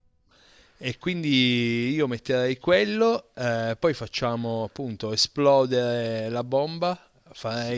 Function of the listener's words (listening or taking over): taking over